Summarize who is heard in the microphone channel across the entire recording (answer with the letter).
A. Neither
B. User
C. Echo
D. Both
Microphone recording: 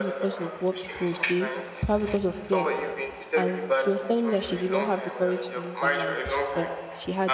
D